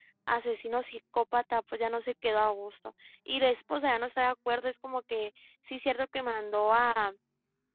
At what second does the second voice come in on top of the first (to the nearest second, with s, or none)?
none